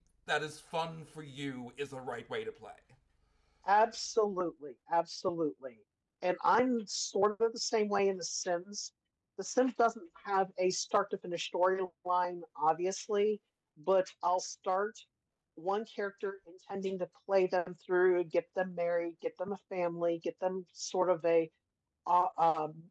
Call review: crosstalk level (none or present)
none